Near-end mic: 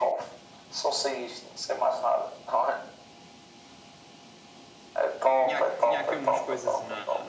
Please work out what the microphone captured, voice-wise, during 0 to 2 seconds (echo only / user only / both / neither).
echo only